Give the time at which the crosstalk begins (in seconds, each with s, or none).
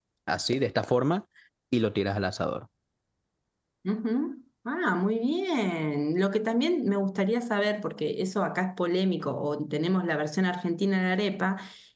none